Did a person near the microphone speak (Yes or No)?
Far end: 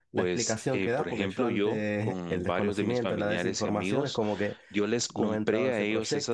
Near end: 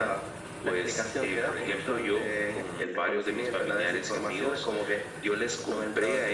No